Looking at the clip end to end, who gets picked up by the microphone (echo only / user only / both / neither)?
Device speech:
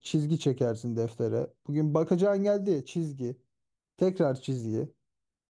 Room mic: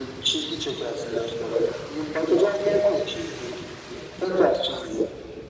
echo only